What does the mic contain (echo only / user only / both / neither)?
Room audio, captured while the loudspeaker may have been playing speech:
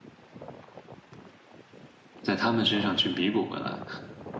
user only